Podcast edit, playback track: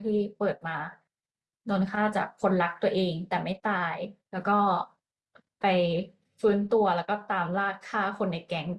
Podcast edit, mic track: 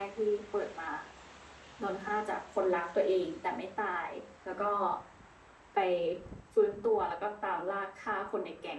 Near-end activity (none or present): none